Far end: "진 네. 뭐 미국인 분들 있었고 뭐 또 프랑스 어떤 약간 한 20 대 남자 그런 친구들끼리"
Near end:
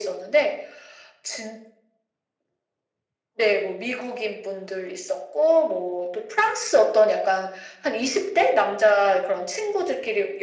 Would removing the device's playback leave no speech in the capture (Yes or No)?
Yes